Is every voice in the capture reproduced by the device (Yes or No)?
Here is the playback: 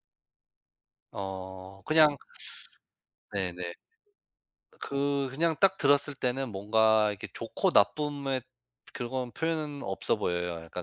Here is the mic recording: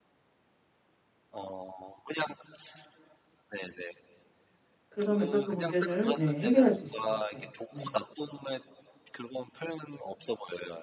No